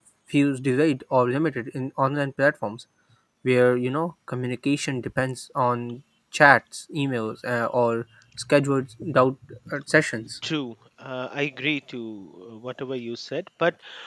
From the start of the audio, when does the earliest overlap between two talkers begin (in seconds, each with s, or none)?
none